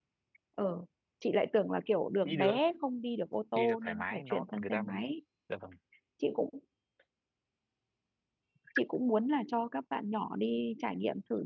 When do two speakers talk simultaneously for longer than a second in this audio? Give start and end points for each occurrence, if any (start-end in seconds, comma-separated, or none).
3.5-4.8